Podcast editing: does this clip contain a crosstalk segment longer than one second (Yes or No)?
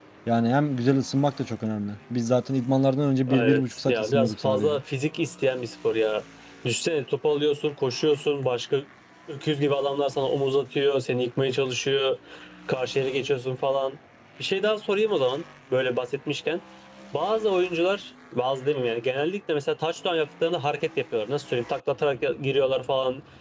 Yes